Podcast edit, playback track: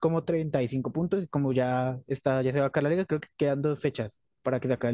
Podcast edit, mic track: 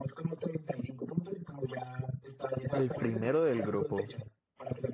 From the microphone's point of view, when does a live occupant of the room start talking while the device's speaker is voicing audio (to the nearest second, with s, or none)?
3 s